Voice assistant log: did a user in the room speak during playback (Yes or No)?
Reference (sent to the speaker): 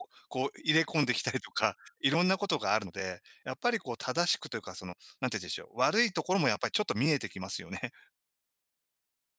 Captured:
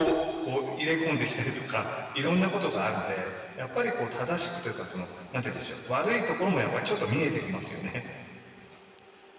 No